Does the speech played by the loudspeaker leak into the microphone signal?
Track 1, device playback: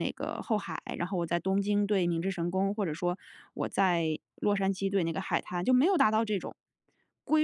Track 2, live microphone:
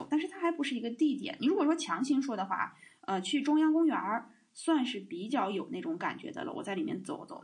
No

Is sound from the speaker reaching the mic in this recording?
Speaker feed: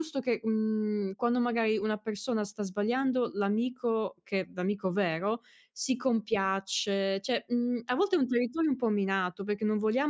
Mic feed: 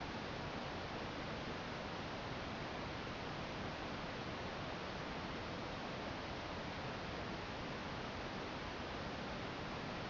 No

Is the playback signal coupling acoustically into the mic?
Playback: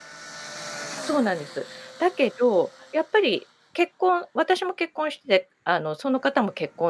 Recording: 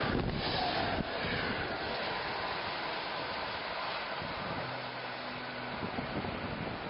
No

